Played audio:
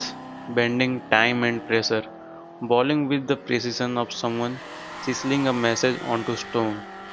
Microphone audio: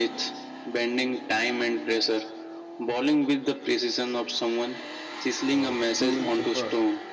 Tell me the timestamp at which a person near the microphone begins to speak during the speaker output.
5.5 s

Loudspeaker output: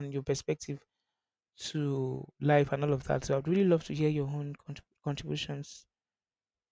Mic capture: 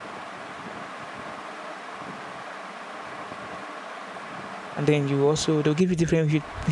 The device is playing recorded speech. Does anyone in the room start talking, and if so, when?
4.8 s

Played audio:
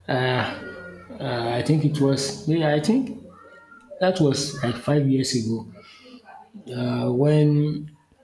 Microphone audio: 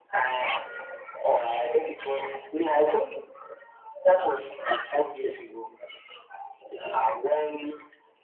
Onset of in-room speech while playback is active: none

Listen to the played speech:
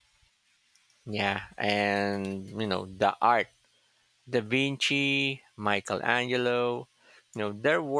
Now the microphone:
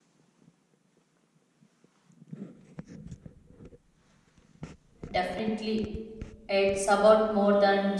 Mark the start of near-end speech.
5.1 s

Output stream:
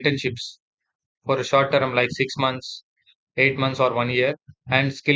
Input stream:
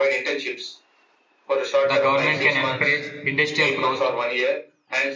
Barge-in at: 1.8 s

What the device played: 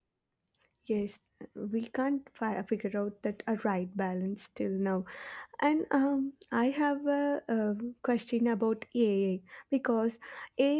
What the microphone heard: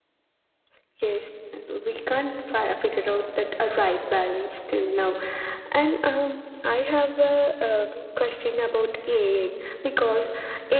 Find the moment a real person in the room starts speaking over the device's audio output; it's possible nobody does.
none

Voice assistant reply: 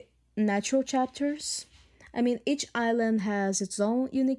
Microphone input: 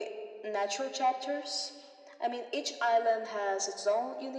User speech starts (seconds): none

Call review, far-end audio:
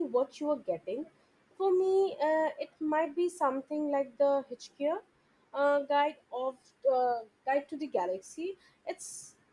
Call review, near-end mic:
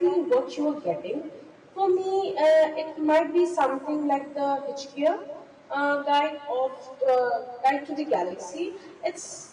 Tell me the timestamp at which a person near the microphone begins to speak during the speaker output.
none

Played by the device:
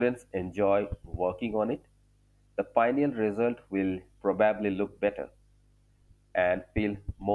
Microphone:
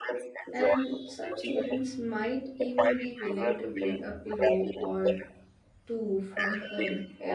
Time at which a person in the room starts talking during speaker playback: 0.5 s

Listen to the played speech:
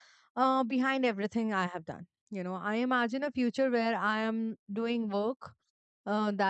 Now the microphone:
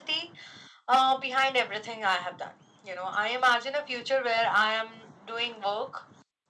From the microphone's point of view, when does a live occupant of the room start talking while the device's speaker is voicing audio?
none

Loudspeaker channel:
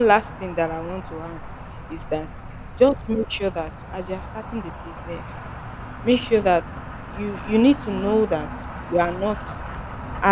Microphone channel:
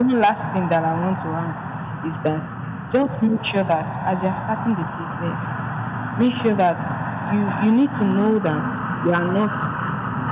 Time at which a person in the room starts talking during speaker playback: none

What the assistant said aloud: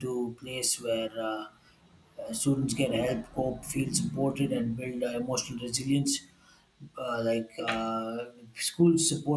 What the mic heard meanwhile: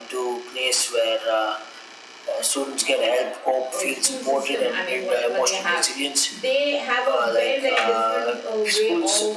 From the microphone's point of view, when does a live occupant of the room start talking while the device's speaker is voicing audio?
3.7 s

